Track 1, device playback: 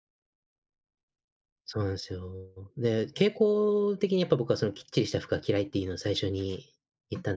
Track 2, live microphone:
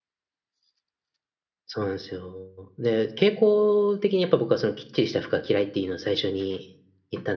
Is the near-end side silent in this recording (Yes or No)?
Yes